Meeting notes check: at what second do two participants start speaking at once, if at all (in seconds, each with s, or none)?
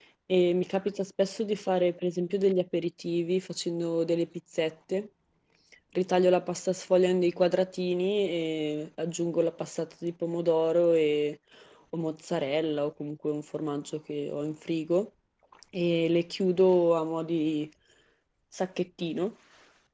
none